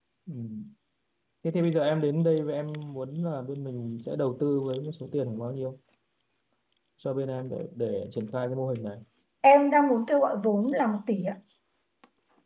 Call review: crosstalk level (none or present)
none